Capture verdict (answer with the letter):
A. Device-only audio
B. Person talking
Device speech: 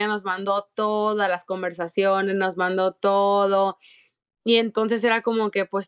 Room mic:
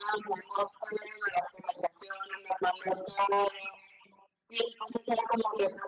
A